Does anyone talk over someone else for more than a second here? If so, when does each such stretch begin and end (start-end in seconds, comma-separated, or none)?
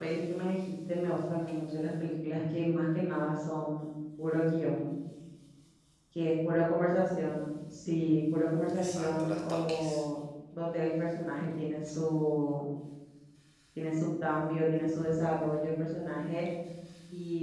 8.7-10.0